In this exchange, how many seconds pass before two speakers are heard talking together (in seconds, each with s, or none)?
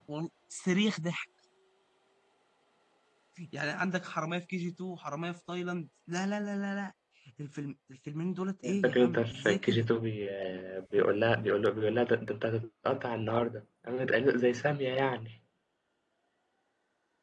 8.6 s